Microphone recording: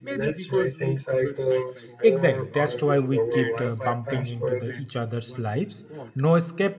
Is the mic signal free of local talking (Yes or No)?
No